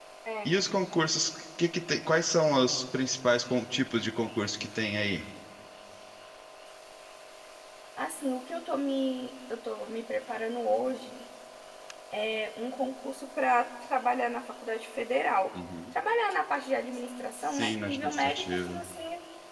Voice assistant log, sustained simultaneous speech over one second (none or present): present